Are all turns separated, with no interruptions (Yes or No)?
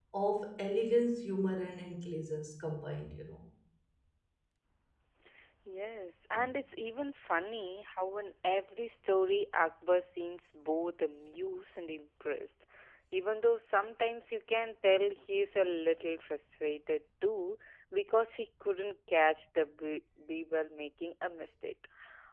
Yes